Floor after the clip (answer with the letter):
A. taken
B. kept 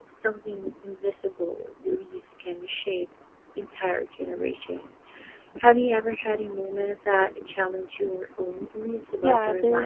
A